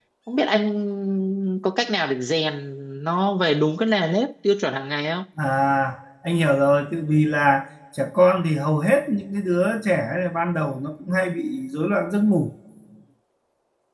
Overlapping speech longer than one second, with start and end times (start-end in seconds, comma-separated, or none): none